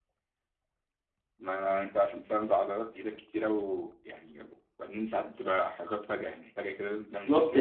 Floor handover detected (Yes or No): Yes